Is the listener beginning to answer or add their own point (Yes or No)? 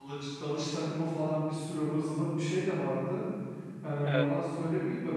No